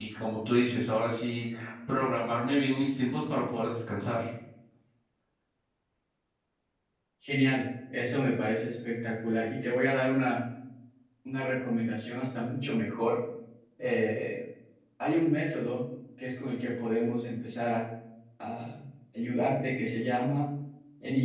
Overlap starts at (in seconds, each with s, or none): none